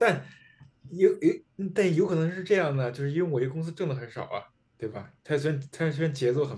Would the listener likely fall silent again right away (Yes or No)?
No